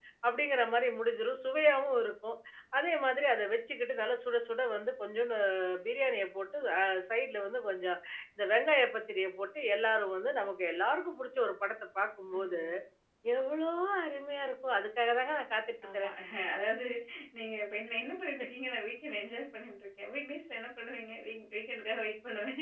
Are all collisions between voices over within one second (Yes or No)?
Yes